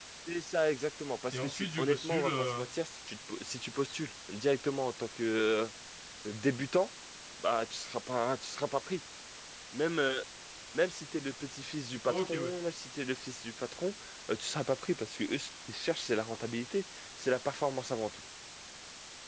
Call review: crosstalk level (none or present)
present